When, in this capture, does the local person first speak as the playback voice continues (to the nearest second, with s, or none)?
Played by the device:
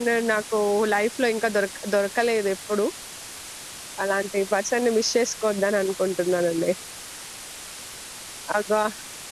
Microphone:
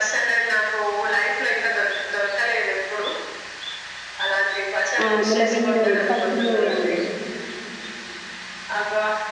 5 s